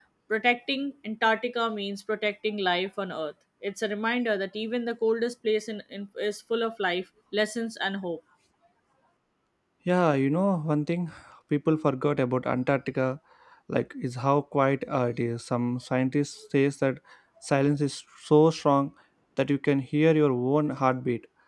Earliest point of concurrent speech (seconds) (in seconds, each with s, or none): none